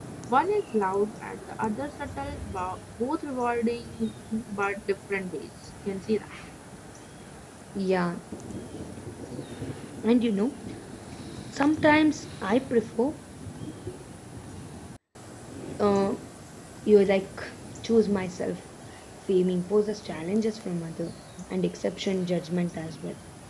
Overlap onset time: none

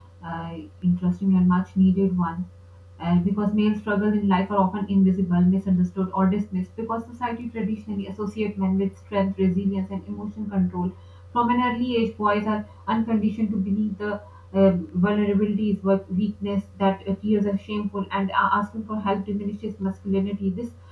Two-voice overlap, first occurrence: none

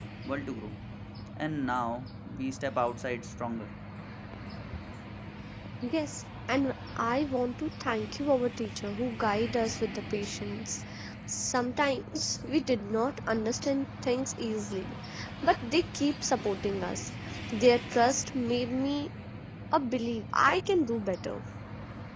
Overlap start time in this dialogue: none

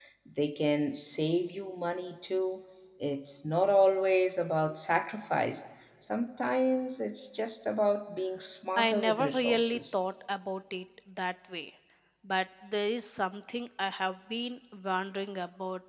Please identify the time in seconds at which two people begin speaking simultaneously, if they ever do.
9 s

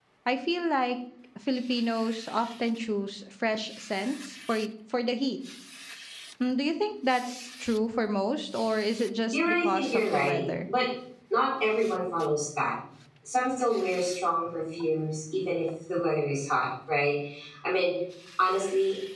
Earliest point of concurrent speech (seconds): 9 s

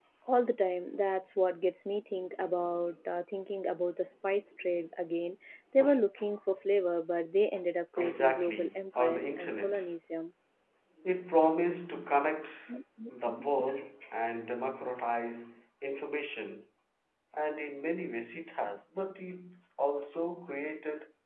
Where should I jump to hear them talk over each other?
8 s

